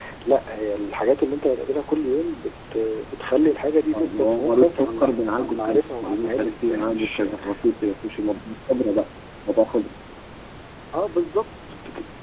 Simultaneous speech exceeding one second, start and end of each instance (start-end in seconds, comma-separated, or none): 3.9-7.2